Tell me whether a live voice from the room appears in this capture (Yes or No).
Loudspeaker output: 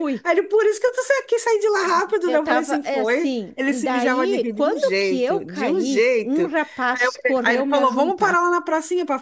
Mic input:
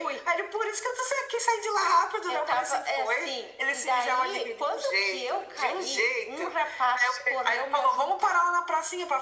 No